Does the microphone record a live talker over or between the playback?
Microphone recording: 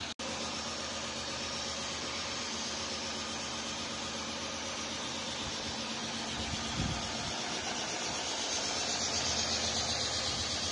No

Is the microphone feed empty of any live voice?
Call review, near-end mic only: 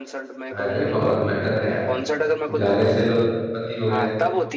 No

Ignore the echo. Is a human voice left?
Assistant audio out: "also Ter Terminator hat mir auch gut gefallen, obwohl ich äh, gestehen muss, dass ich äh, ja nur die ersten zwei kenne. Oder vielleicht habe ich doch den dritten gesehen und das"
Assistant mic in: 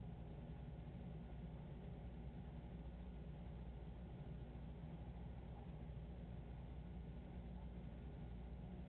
No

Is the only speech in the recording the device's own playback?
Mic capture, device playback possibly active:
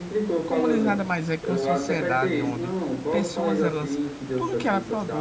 No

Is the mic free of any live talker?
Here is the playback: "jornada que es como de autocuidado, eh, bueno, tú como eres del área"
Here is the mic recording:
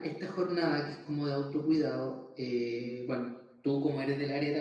Yes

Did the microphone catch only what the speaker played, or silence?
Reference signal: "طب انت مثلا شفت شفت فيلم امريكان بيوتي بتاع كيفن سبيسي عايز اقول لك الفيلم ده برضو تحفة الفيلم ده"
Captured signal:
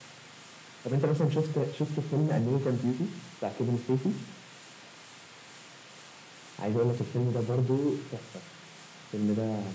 Yes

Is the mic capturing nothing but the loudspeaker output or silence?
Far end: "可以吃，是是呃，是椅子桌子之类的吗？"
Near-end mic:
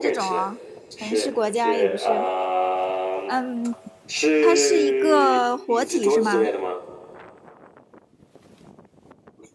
No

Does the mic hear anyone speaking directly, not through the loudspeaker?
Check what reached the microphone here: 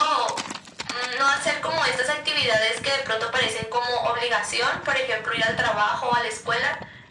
No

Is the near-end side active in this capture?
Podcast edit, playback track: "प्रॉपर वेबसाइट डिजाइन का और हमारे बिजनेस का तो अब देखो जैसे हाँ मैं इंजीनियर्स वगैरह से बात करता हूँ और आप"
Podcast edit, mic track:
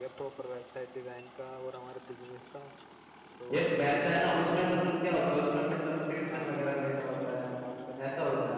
Yes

